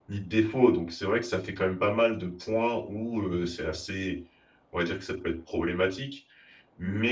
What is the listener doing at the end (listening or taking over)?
listening